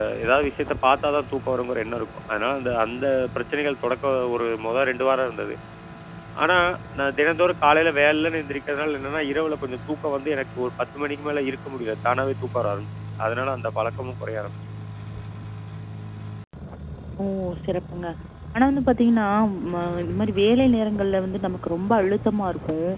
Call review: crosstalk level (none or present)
none